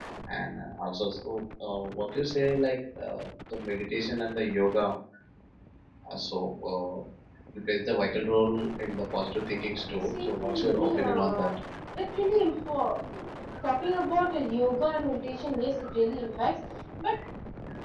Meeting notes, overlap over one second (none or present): present